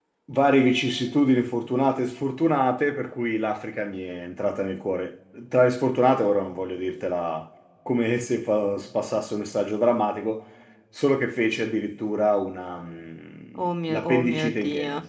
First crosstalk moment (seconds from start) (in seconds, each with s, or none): 13.5 s